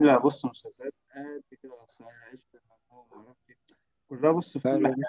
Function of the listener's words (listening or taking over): listening